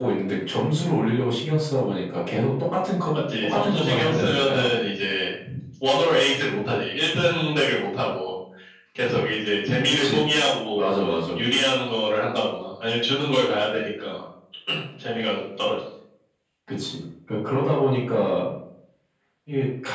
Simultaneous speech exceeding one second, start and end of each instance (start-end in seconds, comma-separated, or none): 3.4-4.7